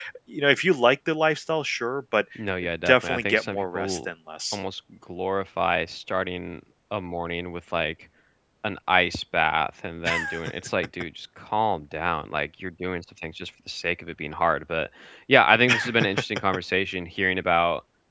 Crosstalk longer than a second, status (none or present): present